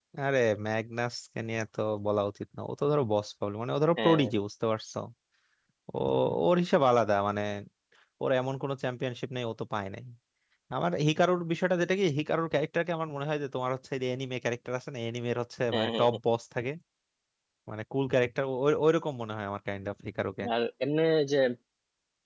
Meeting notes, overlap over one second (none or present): none